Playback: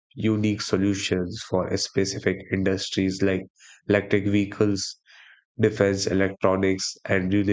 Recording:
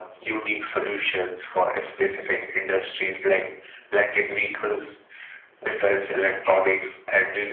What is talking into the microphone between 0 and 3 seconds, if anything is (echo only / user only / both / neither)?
echo only